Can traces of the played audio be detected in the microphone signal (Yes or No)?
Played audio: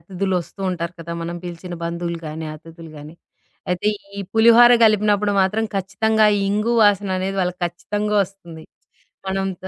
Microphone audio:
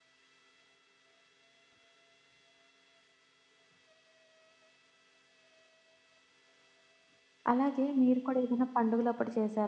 No